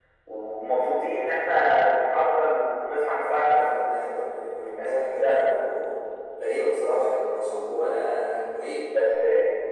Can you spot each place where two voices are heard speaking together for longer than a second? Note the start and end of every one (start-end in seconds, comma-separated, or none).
none